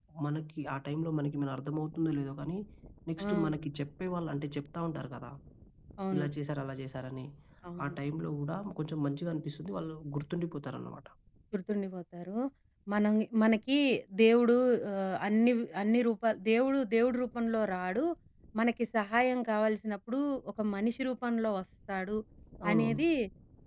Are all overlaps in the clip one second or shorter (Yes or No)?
Yes